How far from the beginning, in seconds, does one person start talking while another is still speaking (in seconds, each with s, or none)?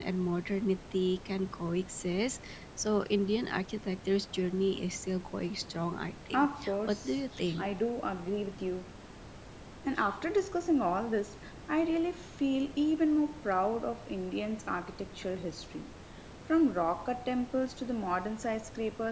6.3 s